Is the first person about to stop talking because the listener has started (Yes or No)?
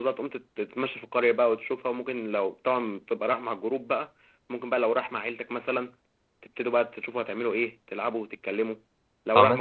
No